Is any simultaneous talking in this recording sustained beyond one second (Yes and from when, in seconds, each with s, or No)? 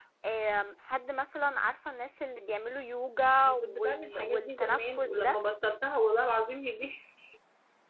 Yes, from 3.4 s